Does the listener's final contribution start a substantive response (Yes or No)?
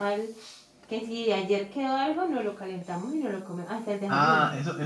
Yes